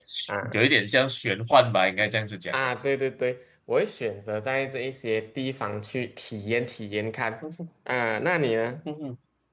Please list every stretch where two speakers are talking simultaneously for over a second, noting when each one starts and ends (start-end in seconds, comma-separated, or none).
none